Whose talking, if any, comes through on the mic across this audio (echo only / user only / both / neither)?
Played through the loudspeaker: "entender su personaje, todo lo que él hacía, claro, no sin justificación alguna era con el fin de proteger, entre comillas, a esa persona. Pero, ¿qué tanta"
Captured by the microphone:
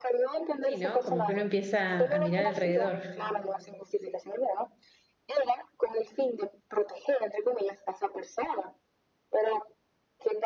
both